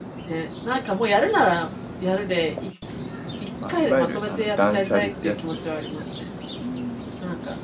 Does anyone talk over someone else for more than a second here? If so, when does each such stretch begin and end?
3.7-6.0

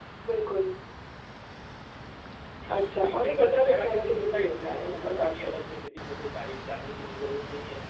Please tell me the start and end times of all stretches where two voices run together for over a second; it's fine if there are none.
2.7-5.2

